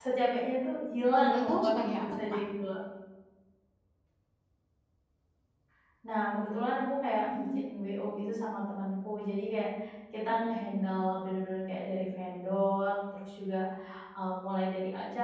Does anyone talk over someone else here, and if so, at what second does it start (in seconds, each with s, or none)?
1.1 s